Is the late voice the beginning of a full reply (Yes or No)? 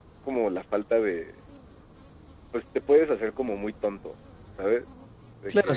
Yes